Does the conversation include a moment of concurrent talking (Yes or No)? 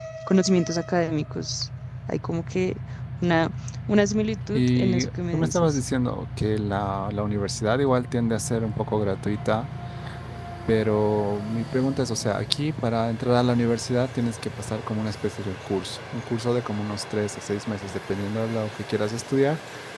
Yes